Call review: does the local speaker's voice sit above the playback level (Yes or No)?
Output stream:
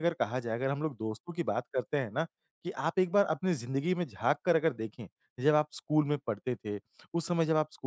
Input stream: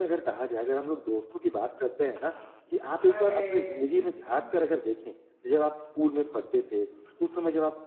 No